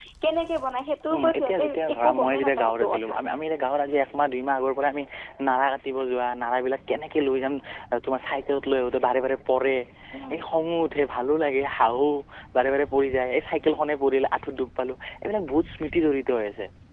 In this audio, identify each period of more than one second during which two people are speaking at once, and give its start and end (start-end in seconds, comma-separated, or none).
1.2-3.1